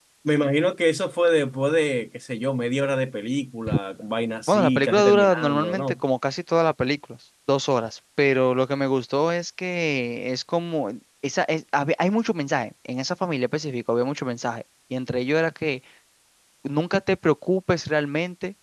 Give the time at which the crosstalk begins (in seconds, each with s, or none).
4.5 s